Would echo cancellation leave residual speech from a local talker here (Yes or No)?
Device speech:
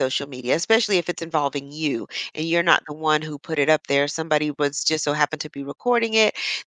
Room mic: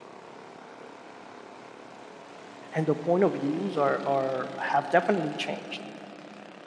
Yes